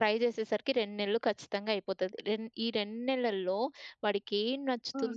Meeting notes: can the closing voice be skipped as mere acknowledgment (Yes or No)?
Yes